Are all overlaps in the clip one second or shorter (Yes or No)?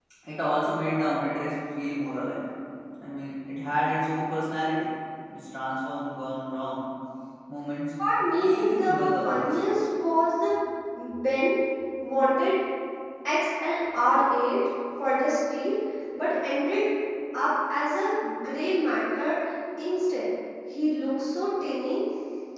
No